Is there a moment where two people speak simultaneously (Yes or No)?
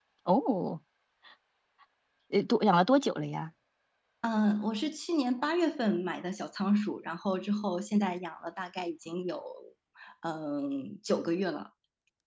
No